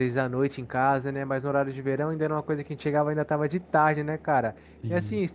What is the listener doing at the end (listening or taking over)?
listening